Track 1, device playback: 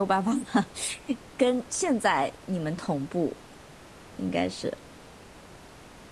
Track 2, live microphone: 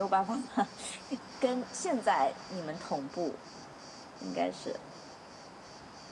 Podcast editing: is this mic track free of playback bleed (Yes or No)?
No